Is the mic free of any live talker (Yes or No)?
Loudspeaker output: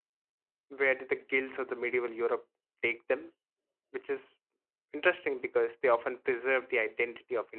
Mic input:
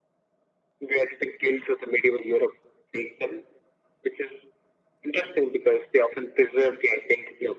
Yes